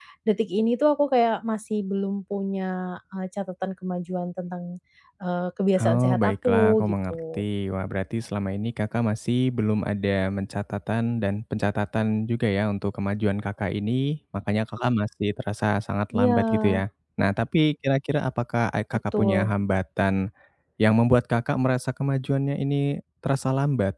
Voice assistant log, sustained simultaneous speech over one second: present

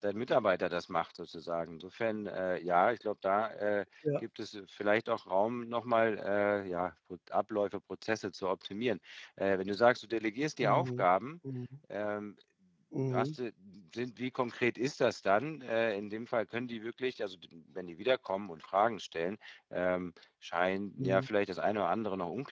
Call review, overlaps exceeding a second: none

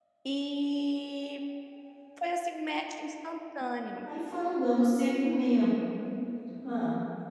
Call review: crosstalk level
none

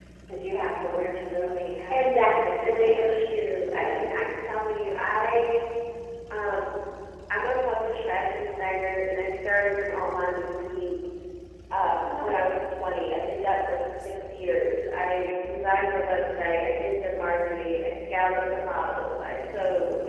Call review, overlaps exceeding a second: present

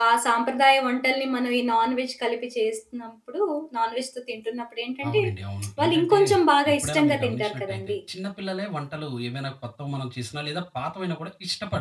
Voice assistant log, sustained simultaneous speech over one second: present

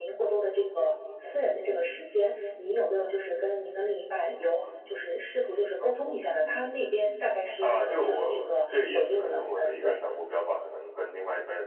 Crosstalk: present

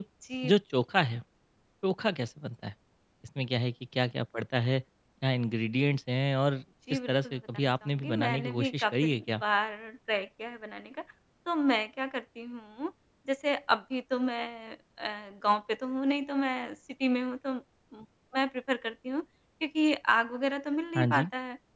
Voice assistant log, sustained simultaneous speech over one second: present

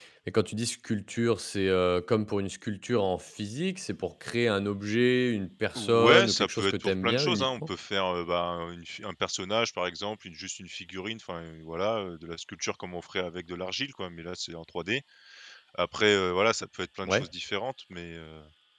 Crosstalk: present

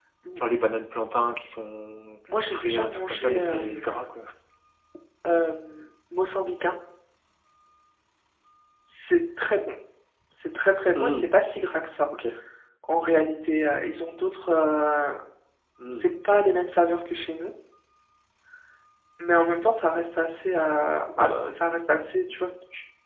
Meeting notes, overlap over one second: present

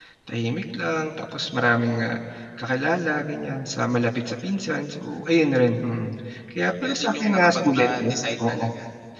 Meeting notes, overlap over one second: present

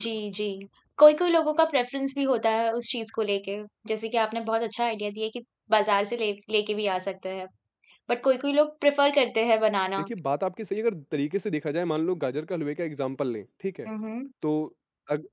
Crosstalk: none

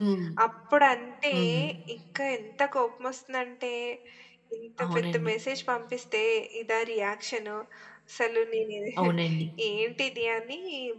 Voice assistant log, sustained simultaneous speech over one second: none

